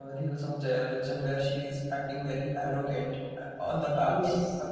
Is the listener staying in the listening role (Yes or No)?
No